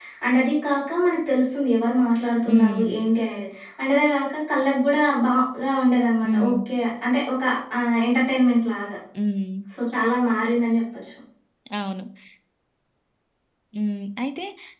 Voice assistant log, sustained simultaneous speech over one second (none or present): none